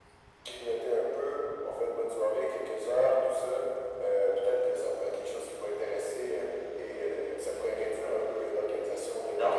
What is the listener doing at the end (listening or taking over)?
taking over